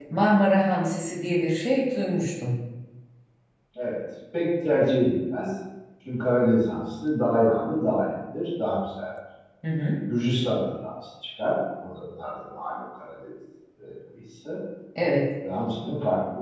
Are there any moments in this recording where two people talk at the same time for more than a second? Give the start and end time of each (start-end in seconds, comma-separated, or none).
none